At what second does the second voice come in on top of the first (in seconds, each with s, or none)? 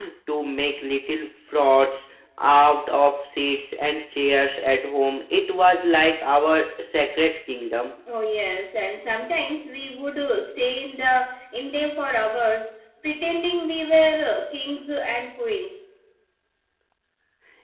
none